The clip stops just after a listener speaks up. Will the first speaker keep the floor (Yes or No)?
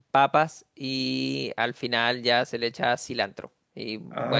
Yes